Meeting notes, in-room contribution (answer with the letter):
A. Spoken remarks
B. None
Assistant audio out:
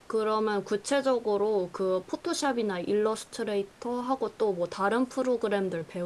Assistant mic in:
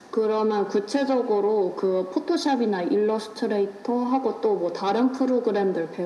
B